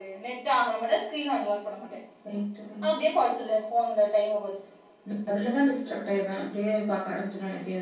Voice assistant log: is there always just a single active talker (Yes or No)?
Yes